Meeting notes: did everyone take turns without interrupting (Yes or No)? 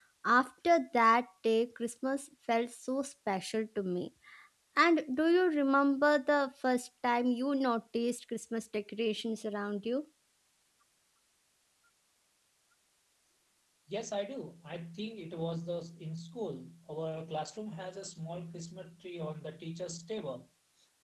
Yes